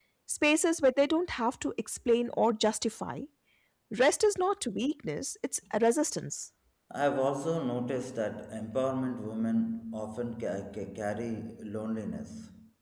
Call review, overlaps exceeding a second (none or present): none